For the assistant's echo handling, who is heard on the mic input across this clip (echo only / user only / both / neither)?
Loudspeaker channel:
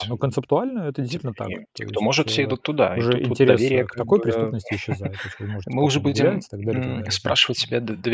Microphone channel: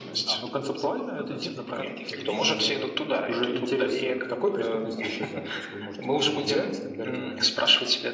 both